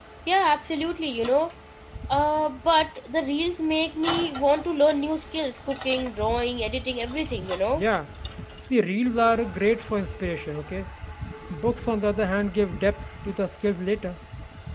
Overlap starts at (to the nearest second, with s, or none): none